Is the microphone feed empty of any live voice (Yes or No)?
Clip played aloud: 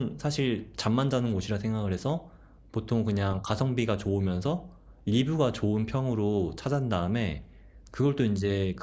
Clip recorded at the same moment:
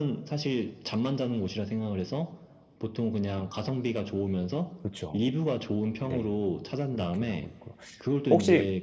No